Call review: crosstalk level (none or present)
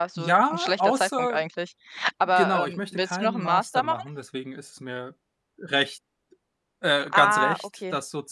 present